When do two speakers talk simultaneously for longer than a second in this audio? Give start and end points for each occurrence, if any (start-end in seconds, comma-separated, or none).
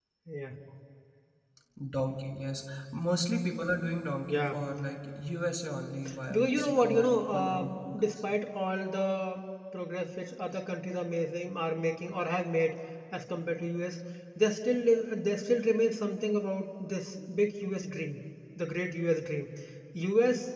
6.3-8.1